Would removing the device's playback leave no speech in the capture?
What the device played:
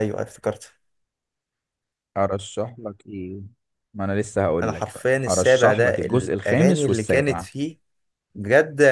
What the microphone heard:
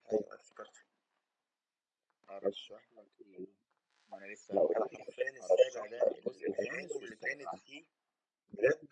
Yes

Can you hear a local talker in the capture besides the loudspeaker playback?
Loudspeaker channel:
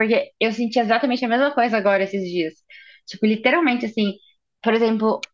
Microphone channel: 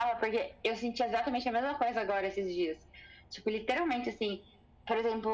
No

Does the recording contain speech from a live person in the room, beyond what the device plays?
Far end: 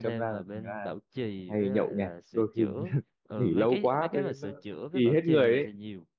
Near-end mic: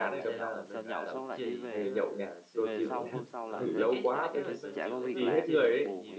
Yes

